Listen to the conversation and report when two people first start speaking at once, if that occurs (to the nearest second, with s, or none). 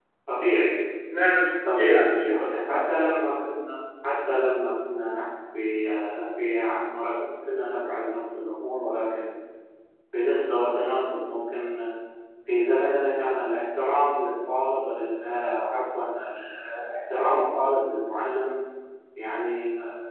2 s